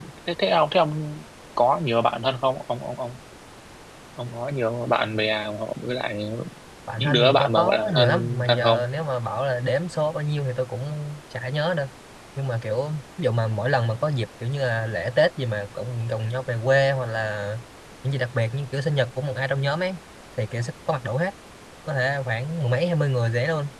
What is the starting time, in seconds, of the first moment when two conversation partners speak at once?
7.0 s

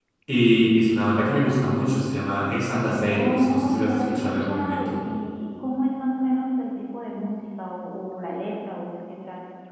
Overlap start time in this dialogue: 2.9 s

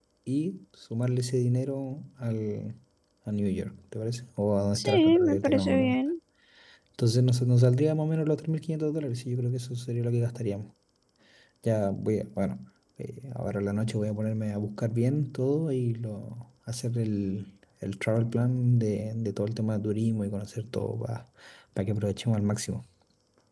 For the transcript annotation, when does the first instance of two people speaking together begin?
4.8 s

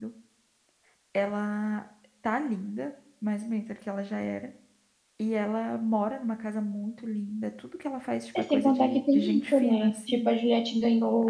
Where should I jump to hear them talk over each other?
8.3 s

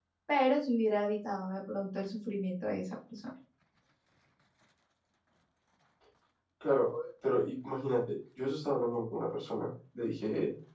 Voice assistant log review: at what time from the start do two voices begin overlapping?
none

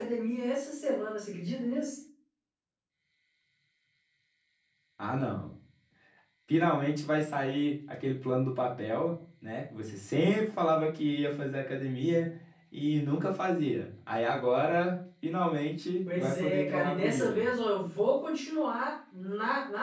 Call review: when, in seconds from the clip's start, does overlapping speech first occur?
16.1 s

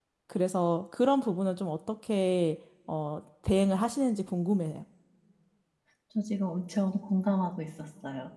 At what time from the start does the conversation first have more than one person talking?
none

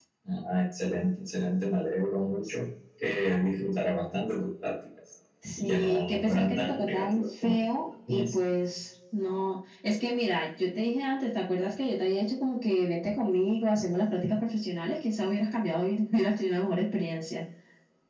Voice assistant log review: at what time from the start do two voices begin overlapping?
5.4 s

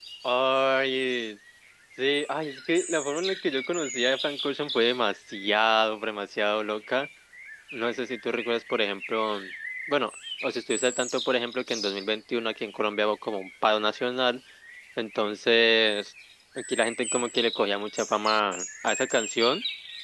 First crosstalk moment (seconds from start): none

